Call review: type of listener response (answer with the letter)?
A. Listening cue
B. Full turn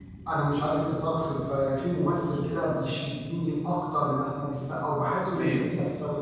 A